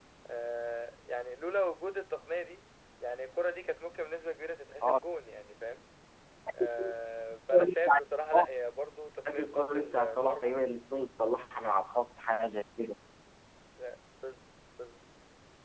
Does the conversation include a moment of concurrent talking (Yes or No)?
Yes